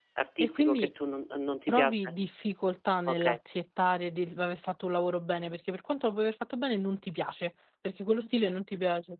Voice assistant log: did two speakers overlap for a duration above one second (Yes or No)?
No